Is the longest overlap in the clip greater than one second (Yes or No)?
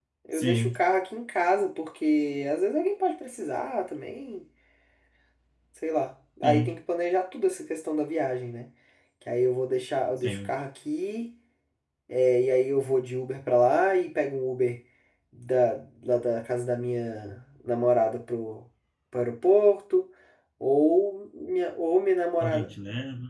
No